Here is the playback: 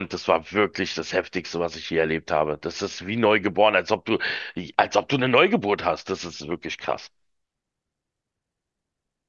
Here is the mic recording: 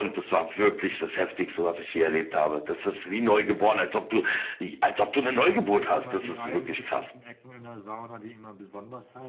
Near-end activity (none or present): present